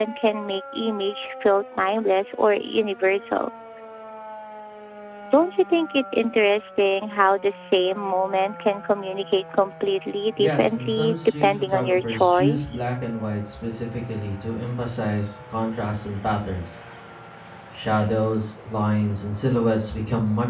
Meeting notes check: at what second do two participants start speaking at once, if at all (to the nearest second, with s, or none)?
10 s